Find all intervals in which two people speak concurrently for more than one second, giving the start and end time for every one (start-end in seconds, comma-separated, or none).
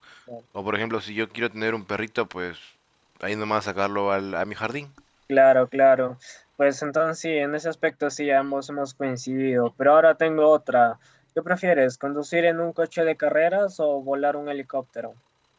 none